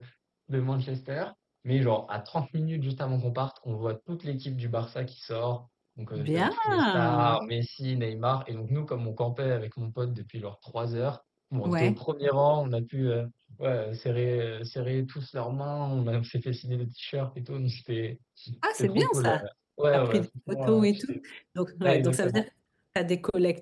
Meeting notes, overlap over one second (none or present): present